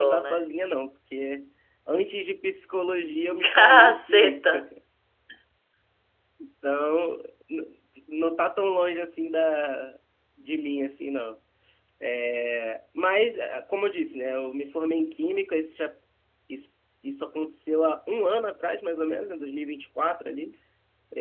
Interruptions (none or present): present